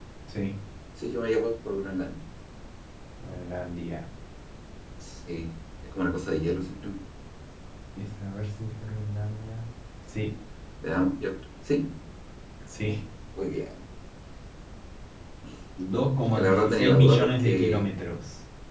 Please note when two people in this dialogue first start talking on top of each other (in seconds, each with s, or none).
16.2 s